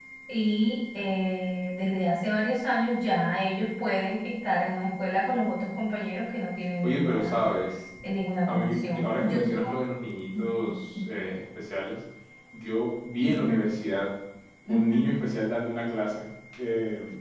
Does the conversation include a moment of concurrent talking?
Yes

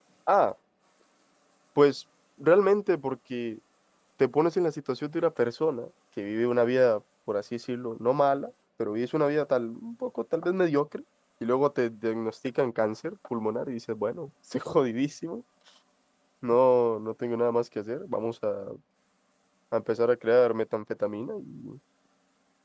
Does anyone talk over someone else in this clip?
No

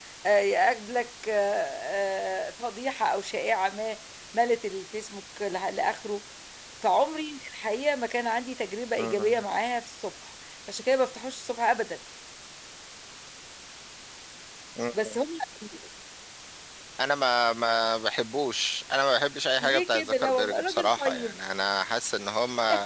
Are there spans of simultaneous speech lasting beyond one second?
Yes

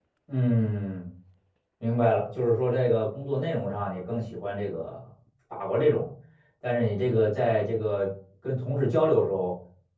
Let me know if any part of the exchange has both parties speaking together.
No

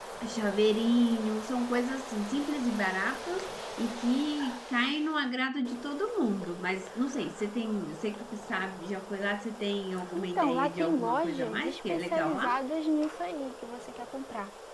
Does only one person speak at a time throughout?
No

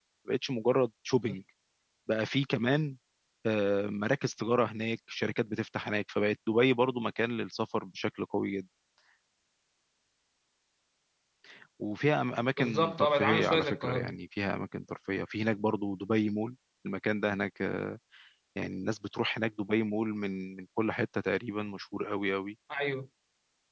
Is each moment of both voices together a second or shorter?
No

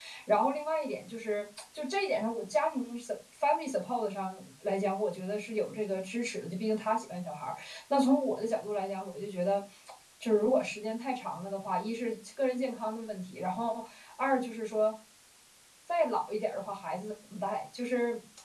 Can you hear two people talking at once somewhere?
No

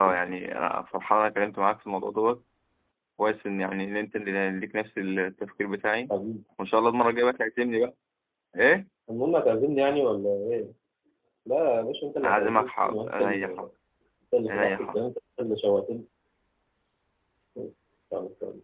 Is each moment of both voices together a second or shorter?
No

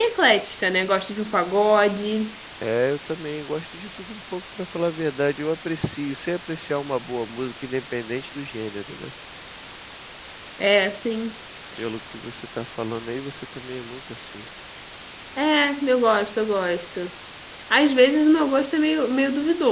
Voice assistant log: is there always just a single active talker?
Yes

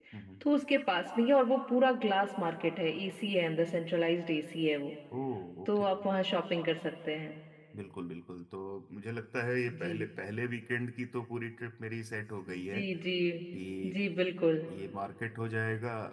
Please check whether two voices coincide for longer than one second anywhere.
No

